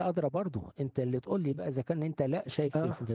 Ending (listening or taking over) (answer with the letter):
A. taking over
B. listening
B